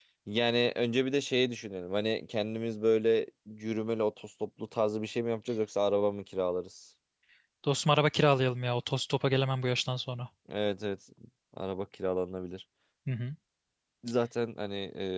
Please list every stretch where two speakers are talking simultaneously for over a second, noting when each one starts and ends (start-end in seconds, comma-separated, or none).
none